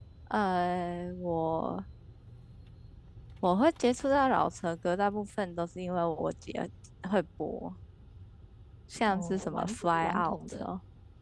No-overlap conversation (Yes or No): No